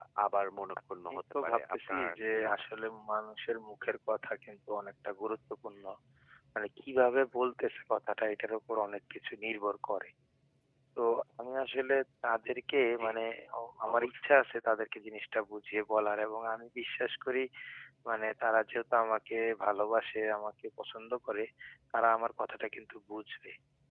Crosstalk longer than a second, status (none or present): present